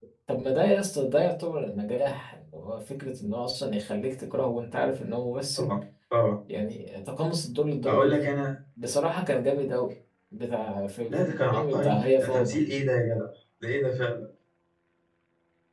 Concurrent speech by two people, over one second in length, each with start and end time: 11.1-12.6

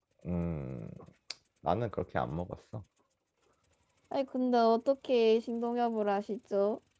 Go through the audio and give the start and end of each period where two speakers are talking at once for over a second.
none

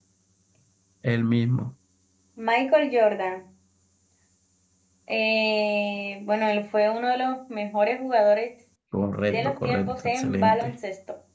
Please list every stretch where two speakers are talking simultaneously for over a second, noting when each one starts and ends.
9.3-10.7

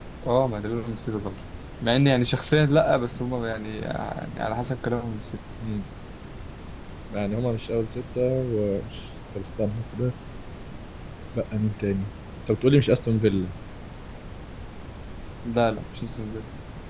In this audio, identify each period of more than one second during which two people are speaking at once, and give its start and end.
none

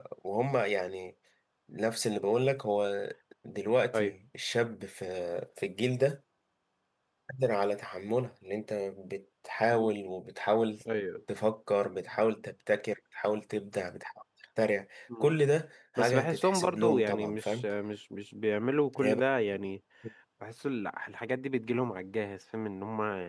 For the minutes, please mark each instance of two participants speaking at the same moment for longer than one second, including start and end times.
16.0-17.7

